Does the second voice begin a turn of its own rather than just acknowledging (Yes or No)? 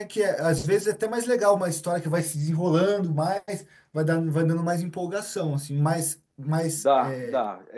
Yes